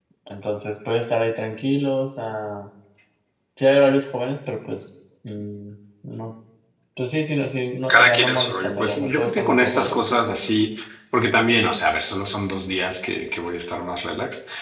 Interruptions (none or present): present